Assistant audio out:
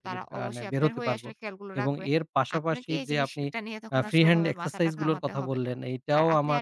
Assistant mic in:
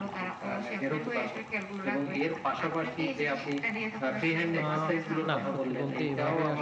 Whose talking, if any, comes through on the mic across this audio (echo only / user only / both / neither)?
both